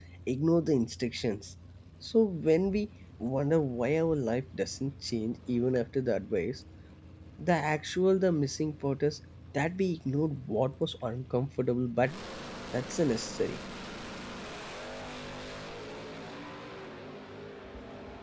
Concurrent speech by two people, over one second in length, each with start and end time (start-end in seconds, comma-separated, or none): none